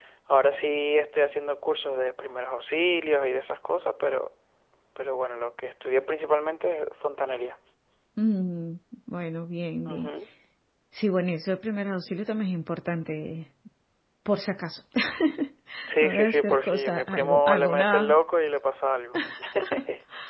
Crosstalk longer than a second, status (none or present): present